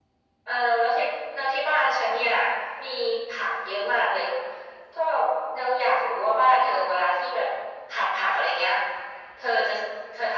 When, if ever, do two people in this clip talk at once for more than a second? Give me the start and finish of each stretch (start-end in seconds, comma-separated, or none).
none